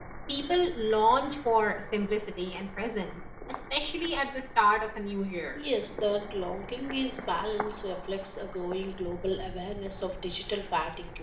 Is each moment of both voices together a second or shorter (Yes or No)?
Yes